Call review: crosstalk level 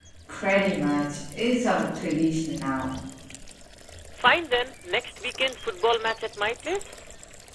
none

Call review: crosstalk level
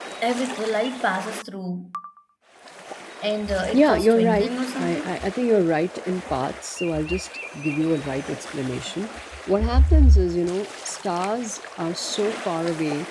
present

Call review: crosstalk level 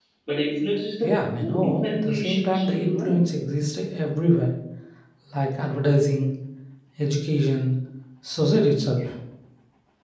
present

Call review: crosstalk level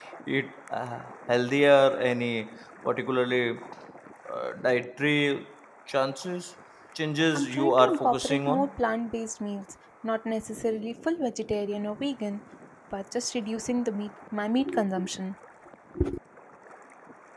present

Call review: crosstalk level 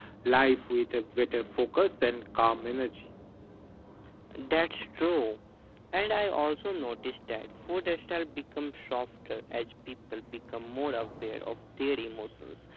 none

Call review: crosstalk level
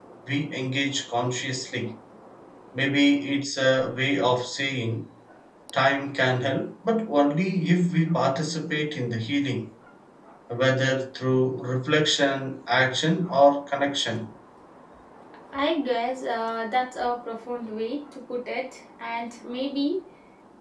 none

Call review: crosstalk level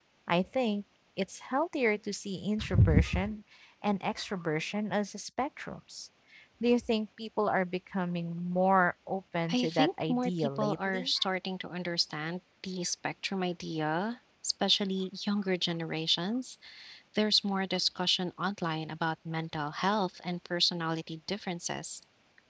present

